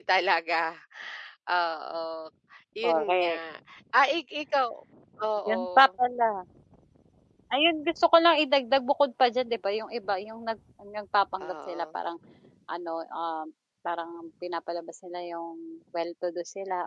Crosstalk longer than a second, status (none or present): none